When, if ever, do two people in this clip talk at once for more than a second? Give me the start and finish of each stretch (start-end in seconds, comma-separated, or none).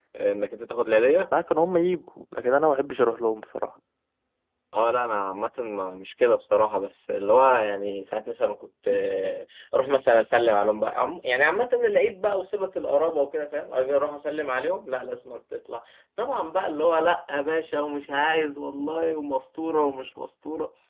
none